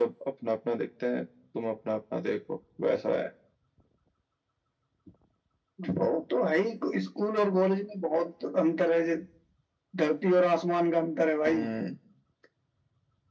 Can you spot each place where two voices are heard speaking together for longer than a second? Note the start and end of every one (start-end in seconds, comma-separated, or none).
none